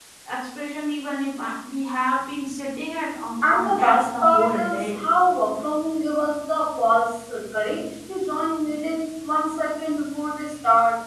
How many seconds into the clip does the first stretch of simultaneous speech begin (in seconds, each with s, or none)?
3.4 s